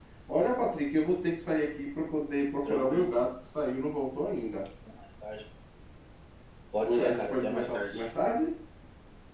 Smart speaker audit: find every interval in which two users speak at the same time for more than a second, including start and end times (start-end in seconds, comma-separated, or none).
6.8-8.0